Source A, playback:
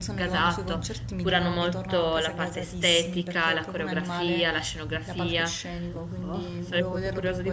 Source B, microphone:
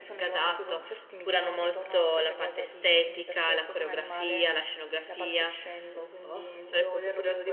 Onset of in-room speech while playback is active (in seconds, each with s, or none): none